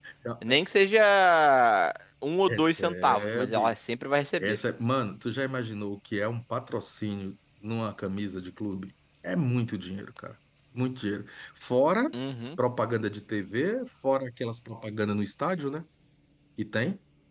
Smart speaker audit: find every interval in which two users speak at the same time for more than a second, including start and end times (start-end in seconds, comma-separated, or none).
2.5-3.8